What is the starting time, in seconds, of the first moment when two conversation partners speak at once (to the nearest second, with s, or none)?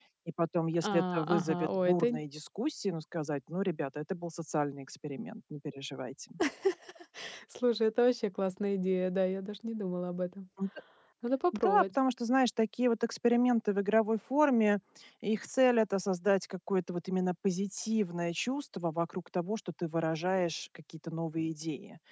1 s